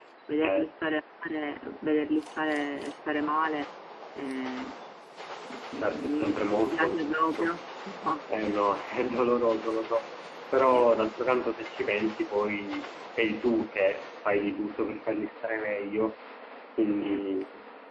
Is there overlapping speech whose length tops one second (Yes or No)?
Yes